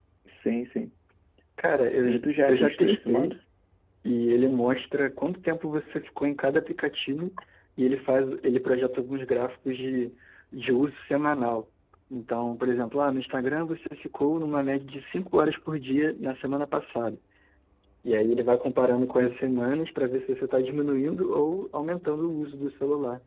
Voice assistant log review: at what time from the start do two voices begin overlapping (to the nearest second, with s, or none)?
2 s